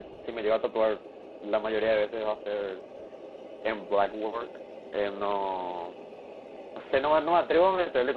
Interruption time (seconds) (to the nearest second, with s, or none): none